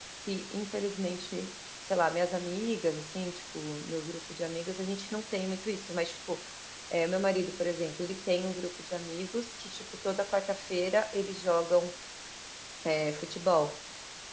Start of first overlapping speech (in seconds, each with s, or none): none